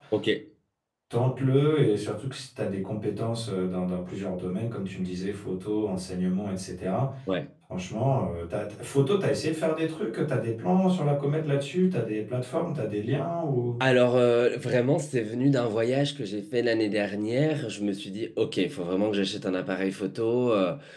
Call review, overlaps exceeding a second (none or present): none